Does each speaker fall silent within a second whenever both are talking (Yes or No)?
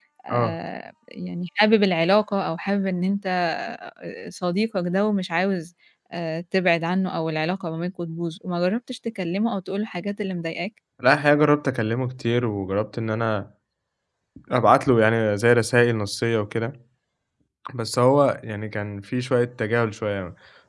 Yes